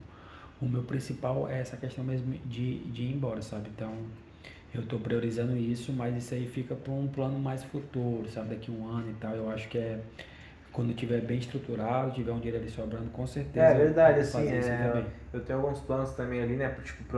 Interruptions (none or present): present